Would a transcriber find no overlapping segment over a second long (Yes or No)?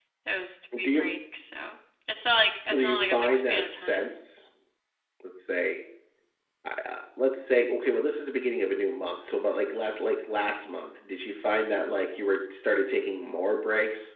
No